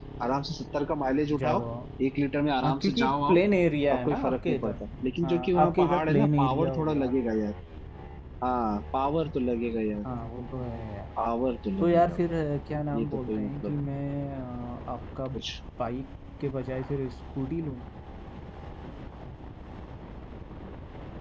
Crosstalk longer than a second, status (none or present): present